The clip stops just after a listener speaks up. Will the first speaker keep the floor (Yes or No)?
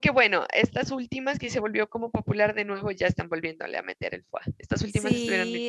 No